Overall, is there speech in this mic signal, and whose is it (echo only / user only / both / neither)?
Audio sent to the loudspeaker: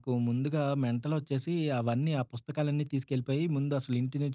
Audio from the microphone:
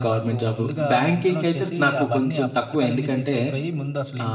both